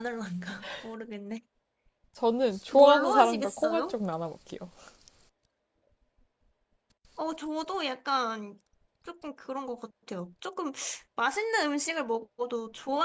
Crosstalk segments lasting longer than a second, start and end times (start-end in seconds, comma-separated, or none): 2.7-4.0